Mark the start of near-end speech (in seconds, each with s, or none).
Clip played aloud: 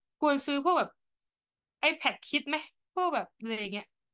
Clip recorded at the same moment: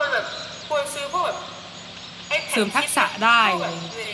2.5 s